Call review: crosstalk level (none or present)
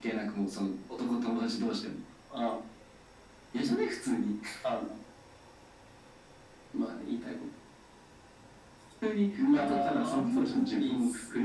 present